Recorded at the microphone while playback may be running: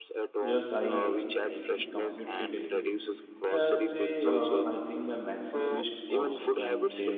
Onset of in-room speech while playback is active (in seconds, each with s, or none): 0.4 s